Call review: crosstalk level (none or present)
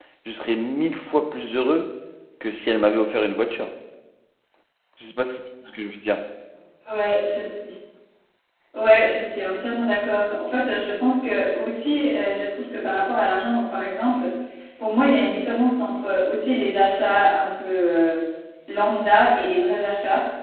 none